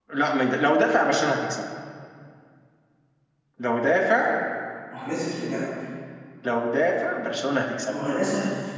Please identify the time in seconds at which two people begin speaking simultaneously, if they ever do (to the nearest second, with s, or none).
none